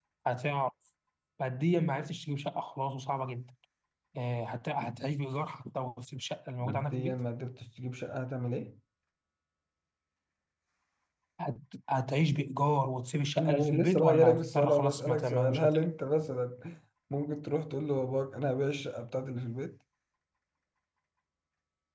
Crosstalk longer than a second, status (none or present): present